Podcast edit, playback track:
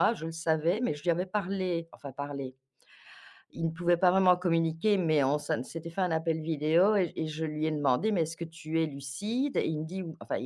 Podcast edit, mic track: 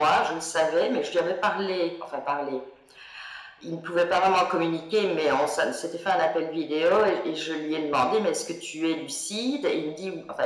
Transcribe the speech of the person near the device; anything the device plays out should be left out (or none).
none